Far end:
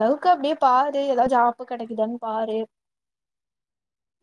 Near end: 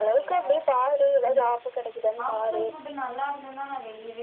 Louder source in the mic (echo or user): echo